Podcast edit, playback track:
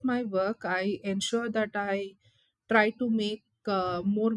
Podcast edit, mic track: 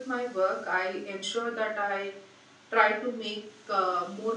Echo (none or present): present